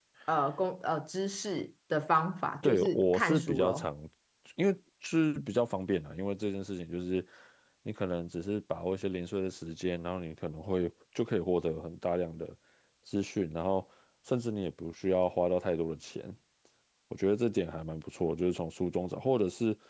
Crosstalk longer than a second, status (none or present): present